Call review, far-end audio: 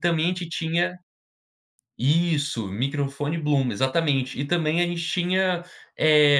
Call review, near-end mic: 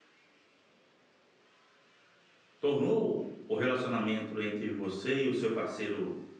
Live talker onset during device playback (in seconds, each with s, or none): 2.6 s